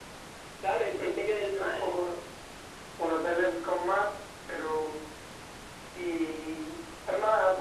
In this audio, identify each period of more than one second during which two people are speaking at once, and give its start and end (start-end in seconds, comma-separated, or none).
none